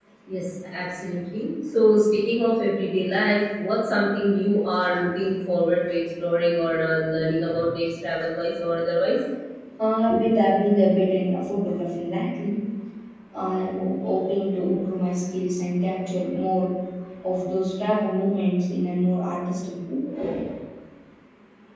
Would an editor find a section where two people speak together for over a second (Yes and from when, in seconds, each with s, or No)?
No